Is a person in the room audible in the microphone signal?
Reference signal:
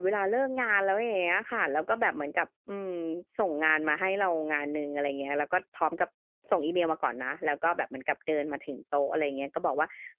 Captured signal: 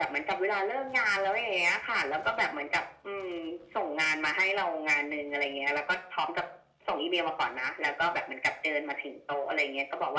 No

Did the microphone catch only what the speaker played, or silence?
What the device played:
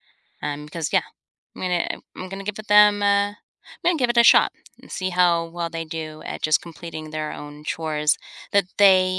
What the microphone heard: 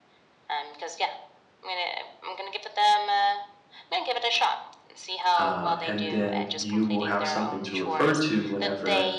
No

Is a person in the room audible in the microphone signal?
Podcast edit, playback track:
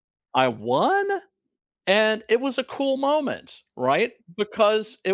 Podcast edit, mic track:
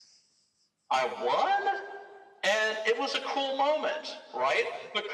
No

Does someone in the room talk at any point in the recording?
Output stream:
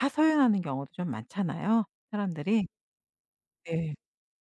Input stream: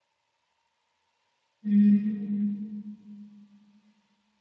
Yes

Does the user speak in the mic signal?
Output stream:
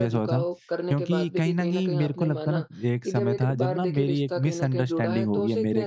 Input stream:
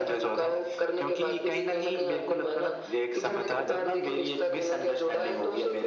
No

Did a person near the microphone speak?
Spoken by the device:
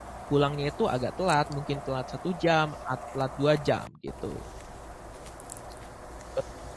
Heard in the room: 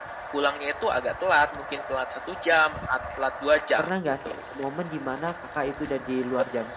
Yes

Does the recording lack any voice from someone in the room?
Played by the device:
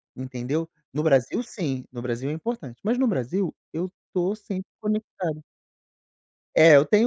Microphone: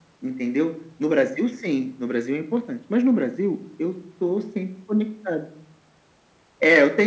Yes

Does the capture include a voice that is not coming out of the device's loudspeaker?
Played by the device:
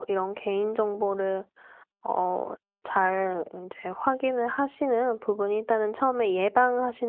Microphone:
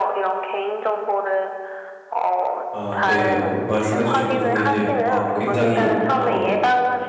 Yes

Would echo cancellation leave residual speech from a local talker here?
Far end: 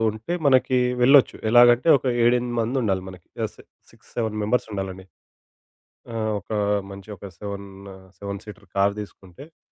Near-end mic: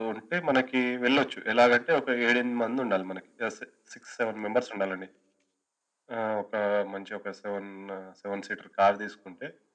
No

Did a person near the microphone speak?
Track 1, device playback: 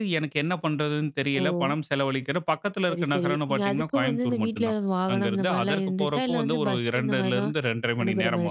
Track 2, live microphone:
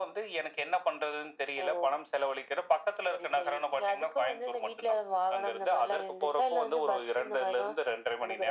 No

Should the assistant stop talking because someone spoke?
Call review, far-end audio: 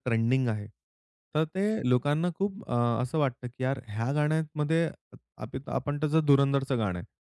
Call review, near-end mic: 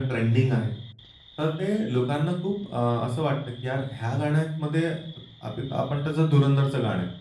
No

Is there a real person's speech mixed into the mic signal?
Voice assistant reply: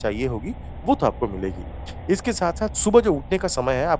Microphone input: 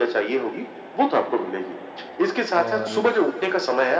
Yes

